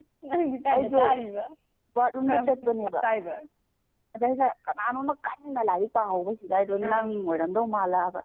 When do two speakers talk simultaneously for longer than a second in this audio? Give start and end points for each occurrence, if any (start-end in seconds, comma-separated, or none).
none